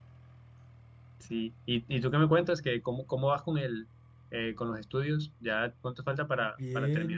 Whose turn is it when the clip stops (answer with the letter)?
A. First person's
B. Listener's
B